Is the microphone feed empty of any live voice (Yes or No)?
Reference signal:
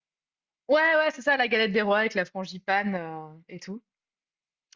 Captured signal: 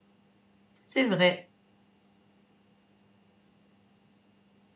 No